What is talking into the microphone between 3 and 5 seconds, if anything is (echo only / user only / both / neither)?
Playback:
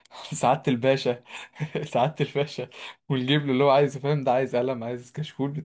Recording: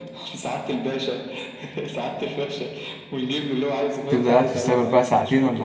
both